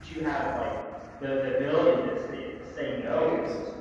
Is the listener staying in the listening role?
Yes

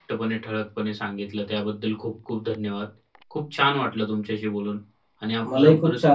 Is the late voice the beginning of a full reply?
Yes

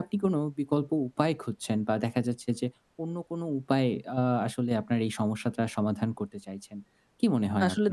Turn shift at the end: Yes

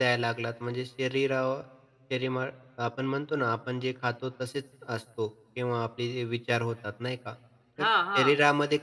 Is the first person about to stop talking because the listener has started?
No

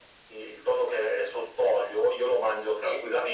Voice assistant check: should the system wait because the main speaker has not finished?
Yes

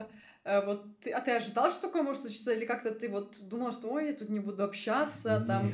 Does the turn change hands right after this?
No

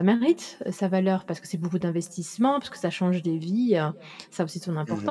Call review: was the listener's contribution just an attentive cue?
No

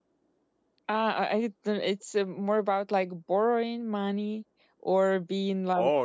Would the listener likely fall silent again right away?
No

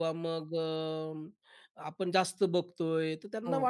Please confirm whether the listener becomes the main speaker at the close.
No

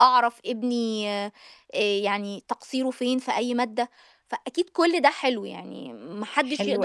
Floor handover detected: Yes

